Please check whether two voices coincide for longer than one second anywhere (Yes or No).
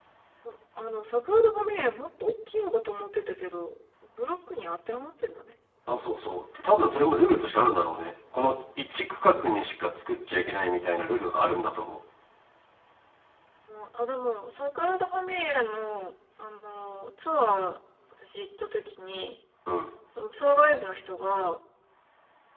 No